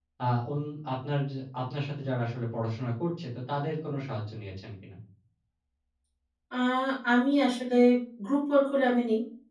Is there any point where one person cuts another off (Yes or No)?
No